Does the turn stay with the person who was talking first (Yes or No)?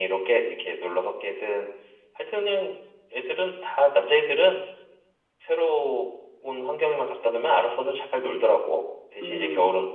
Yes